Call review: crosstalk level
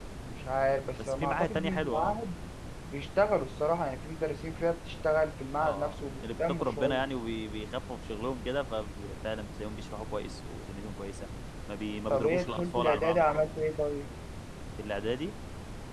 present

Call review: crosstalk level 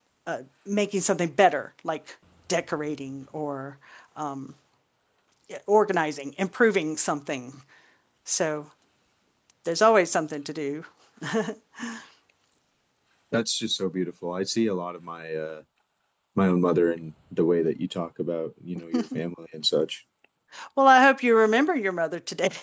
none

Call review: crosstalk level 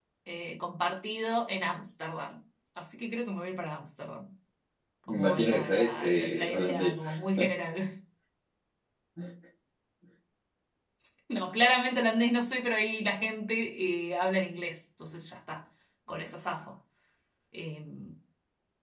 present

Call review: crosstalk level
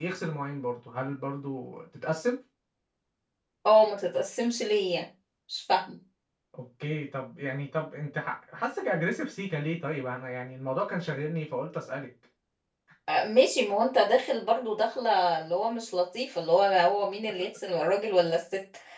none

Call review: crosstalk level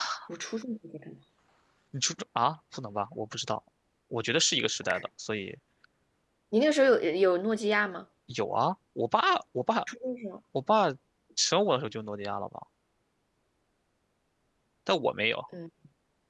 none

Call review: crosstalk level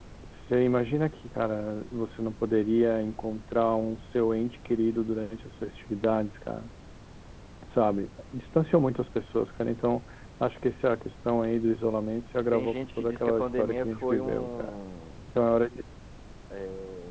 present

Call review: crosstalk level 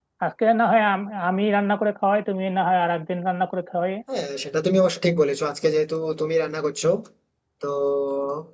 none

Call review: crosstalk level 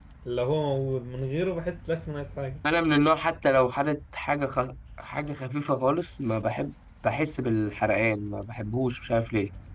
none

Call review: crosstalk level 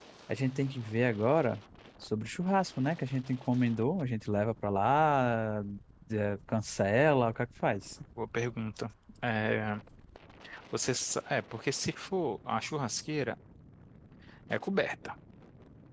none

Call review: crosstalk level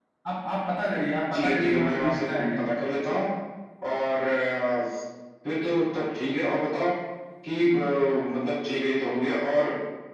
present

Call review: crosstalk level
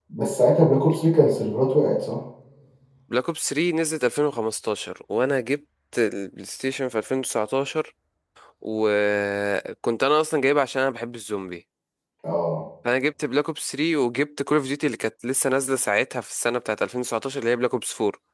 none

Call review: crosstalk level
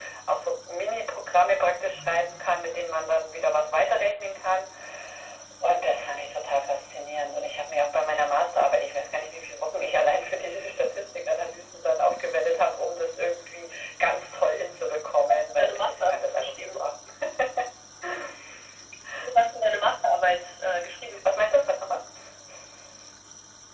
present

